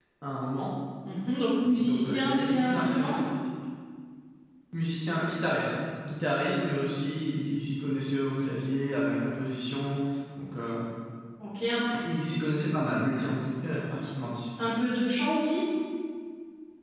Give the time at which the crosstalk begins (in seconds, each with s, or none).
1.8 s